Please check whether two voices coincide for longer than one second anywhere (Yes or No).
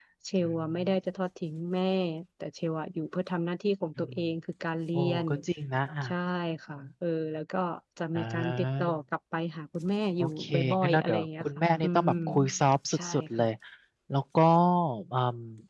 Yes